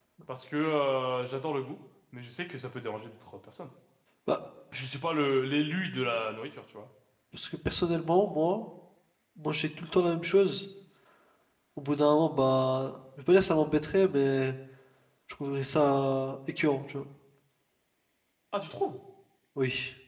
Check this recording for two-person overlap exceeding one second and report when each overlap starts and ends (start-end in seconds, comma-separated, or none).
none